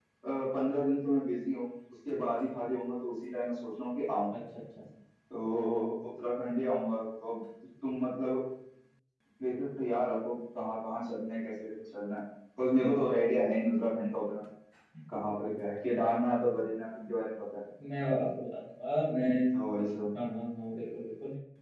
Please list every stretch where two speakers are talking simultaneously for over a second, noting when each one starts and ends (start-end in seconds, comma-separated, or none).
none